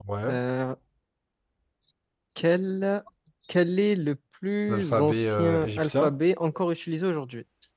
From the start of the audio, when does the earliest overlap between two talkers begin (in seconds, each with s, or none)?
4.7 s